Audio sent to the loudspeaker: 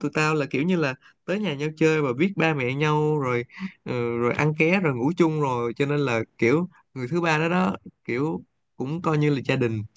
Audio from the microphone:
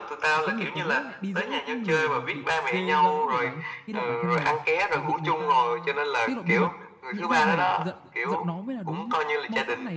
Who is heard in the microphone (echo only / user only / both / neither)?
both